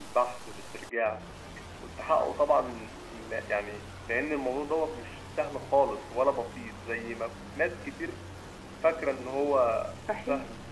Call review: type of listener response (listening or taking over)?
taking over